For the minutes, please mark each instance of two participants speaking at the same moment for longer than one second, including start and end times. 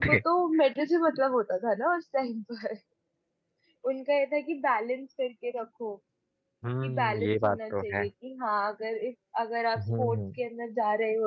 6.8-8.0

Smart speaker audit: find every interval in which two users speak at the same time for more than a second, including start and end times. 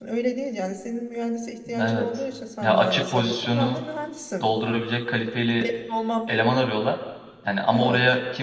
2.6-3.8

